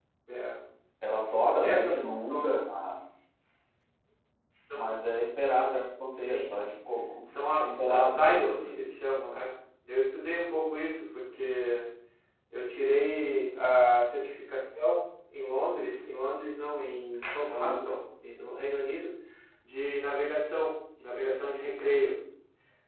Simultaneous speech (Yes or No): Yes